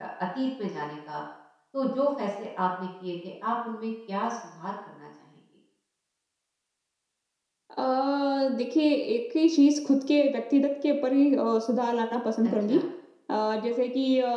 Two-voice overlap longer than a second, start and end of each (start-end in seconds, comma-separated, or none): none